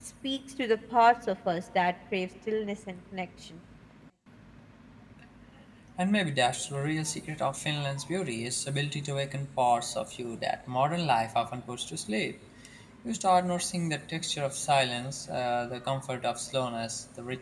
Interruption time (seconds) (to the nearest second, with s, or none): none